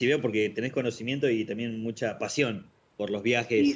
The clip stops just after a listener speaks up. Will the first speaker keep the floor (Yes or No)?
No